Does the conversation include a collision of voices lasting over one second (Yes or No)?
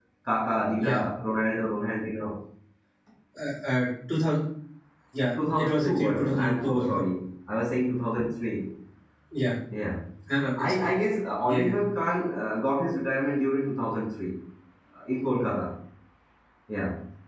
Yes